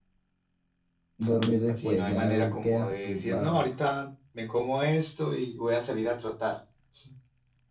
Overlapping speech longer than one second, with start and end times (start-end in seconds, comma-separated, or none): 1.7-3.6